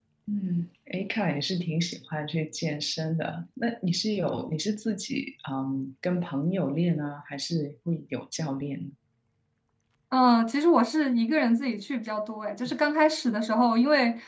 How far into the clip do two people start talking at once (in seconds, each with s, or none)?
none